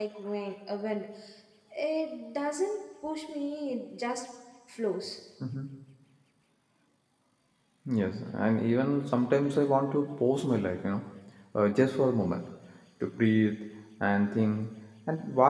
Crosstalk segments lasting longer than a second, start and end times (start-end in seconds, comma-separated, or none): none